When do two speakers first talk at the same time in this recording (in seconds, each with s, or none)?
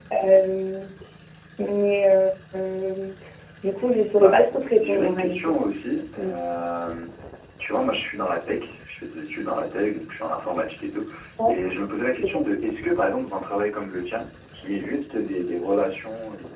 4.1 s